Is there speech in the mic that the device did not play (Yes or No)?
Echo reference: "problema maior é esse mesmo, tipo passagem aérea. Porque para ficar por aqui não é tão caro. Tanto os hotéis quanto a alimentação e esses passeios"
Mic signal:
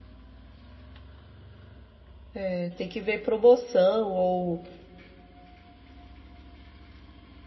Yes